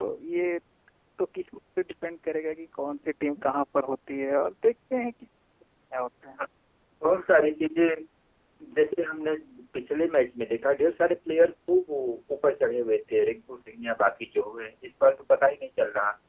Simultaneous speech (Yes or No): No